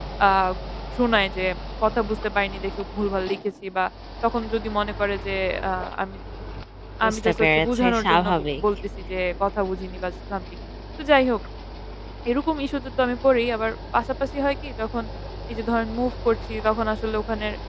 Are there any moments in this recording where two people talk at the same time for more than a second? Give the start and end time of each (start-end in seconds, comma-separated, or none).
7.1-8.6